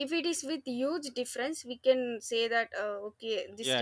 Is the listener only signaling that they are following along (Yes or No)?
No